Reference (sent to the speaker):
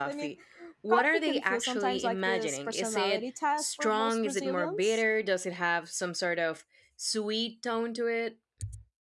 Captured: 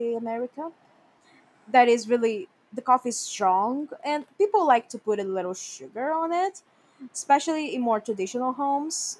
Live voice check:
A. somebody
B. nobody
A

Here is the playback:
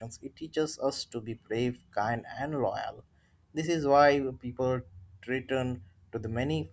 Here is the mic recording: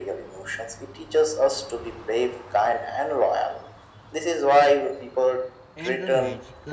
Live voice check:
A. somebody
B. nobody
A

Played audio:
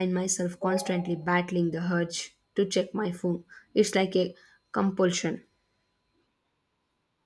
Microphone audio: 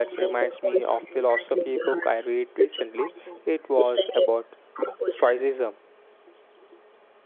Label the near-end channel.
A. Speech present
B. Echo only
A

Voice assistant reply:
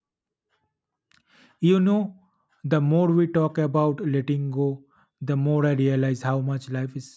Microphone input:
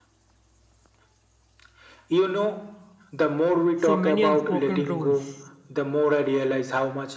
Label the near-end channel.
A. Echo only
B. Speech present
B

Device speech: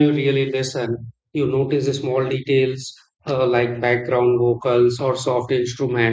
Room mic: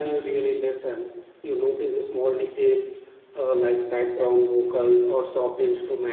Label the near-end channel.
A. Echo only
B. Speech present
A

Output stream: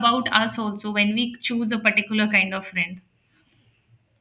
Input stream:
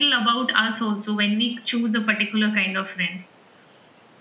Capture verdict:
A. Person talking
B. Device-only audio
B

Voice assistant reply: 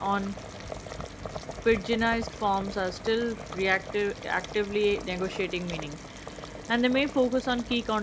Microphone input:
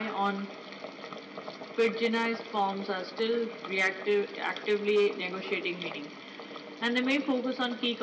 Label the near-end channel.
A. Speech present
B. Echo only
B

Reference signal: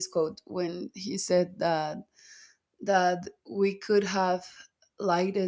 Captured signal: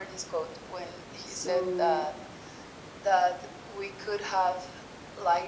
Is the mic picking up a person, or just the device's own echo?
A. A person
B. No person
A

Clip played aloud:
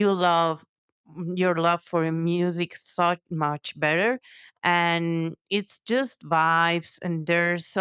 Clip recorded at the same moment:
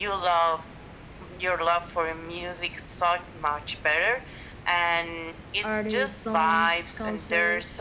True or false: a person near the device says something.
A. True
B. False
A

